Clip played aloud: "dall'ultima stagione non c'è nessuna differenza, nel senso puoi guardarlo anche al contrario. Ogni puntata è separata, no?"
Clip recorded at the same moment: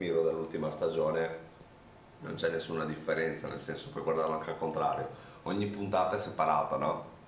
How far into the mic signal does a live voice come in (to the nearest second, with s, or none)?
none